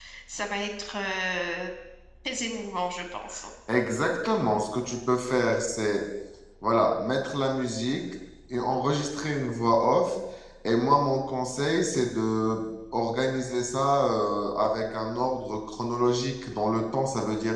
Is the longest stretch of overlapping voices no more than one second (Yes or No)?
Yes